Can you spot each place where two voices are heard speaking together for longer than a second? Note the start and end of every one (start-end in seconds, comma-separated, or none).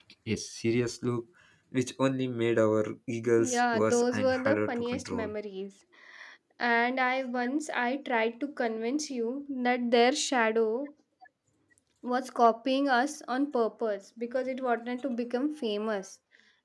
3.4-5.3